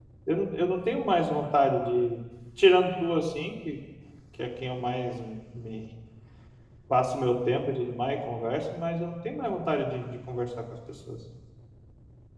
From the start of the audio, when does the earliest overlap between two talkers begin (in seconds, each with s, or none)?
none